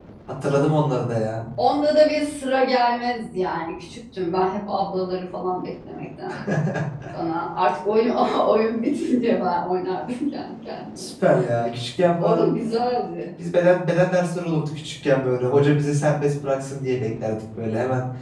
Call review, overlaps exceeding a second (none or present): none